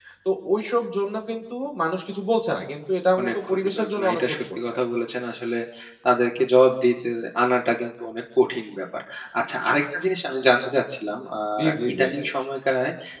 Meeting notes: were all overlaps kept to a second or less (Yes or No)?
No